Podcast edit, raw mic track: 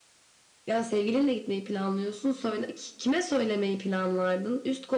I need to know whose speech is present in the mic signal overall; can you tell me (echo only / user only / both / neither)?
echo only